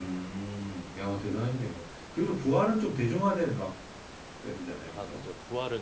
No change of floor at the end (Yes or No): No